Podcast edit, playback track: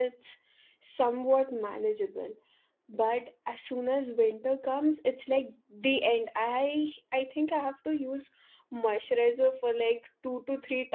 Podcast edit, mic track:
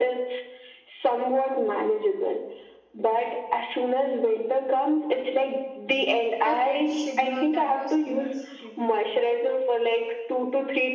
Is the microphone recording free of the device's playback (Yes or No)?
No